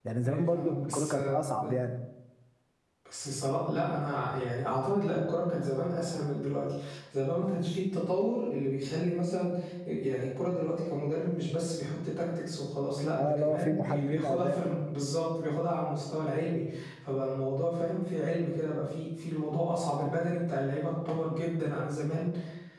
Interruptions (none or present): present